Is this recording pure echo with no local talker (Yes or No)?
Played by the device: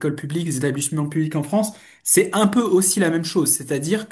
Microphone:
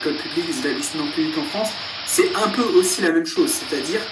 Yes